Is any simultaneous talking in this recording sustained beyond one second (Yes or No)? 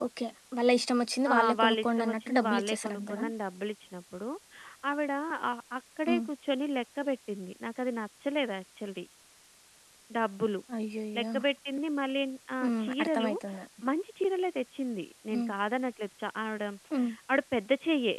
Yes